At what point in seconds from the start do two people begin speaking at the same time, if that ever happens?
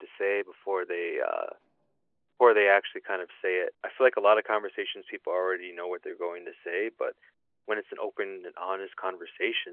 none

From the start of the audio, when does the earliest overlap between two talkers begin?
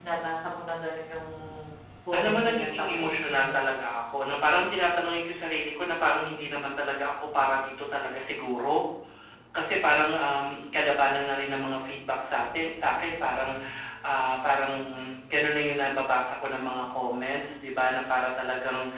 2.2 s

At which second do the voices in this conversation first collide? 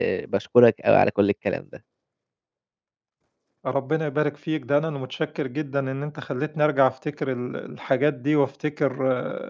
none

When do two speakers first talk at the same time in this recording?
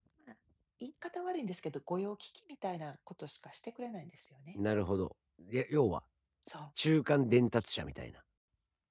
none

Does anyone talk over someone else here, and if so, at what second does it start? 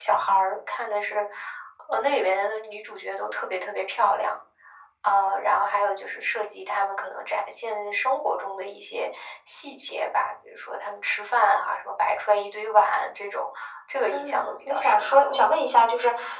14.1 s

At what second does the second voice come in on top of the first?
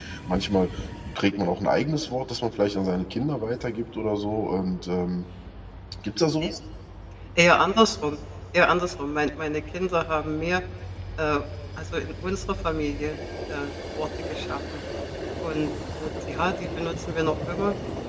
none

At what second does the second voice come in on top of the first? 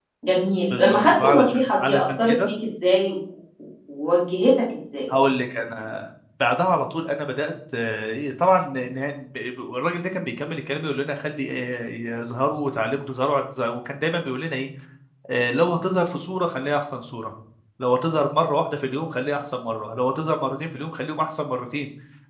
0.7 s

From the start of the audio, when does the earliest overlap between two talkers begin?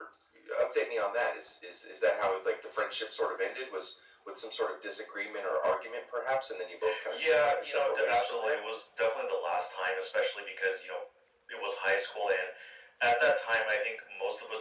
7.1 s

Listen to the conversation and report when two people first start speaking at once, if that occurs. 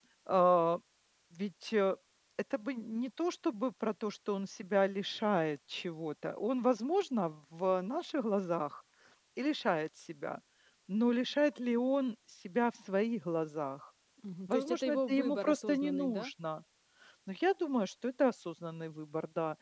14.5 s

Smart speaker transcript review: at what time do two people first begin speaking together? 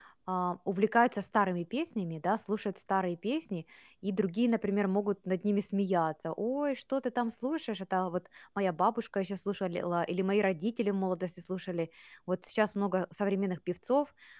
none

